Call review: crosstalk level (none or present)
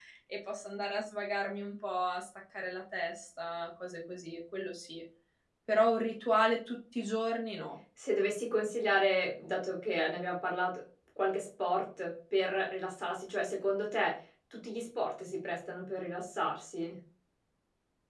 none